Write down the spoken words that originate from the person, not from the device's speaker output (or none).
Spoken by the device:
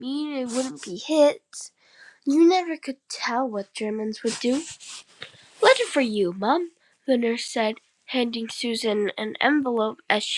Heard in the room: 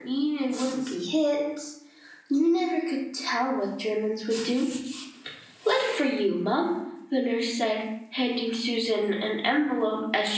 none